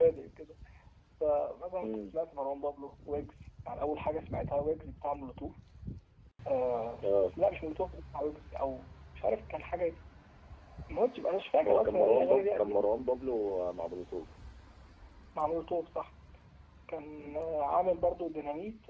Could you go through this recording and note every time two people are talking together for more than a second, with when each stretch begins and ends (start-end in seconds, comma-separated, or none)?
11.6-12.9